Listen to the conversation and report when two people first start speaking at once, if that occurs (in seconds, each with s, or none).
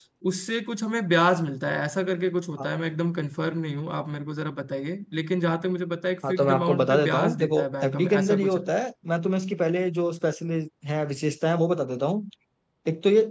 6.2 s